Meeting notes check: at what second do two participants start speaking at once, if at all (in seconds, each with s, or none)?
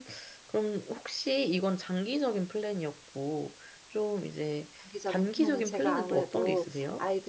4.9 s